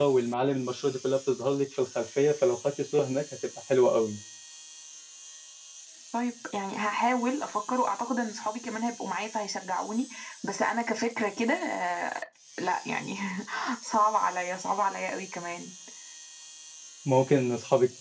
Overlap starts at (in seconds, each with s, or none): none